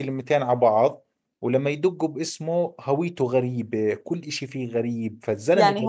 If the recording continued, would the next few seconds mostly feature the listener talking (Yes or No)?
Yes